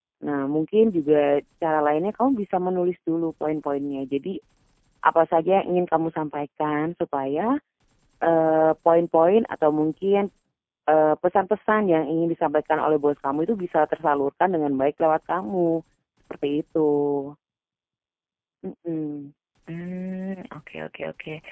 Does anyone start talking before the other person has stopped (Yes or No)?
No